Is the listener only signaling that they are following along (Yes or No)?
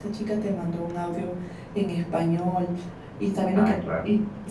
Yes